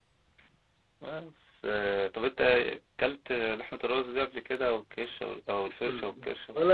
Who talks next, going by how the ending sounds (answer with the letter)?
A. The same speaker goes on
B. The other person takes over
B